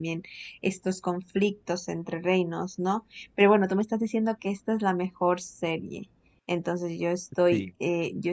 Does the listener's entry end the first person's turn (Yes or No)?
No